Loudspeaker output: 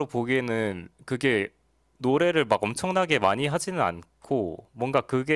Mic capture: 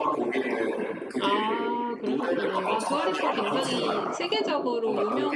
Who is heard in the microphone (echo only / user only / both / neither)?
both